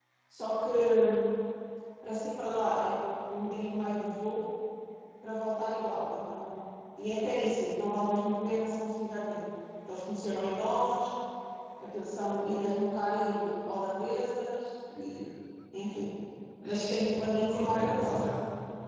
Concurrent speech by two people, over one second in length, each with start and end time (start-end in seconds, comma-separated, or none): 16.6-18.2